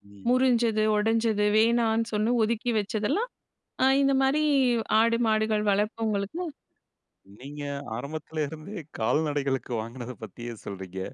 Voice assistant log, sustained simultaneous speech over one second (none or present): none